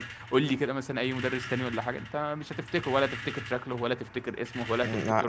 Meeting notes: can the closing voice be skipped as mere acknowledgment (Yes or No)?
No